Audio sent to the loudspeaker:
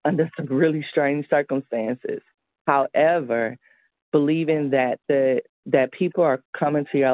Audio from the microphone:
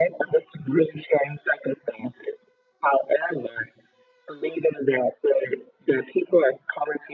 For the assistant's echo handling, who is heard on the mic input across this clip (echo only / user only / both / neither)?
echo only